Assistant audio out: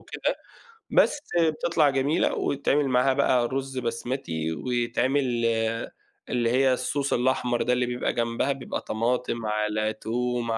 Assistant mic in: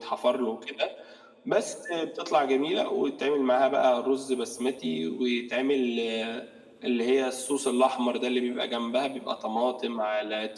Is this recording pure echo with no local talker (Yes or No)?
Yes